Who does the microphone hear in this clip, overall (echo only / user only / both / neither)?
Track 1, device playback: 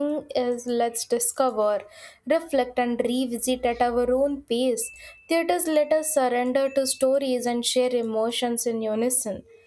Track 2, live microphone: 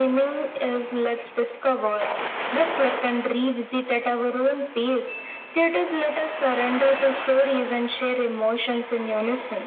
echo only